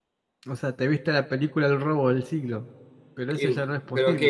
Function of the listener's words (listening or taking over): taking over